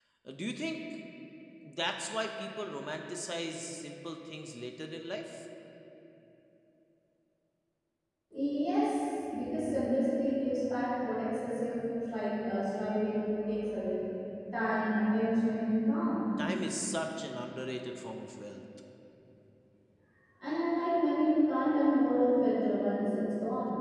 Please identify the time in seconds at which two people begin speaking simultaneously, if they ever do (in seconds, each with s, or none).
none